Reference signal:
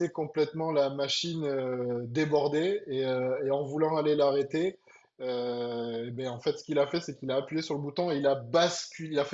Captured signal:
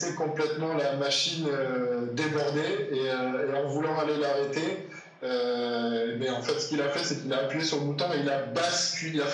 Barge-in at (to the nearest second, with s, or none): none